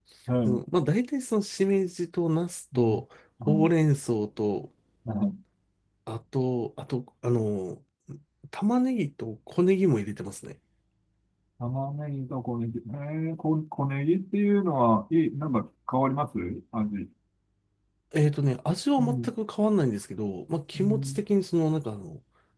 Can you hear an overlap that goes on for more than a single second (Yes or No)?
No